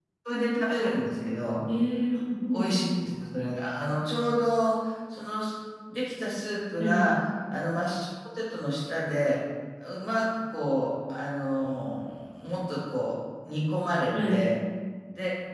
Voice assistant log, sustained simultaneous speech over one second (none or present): none